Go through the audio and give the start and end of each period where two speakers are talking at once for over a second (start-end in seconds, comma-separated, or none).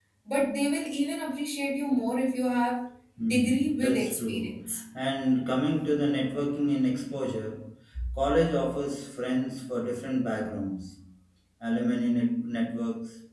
3.3-4.8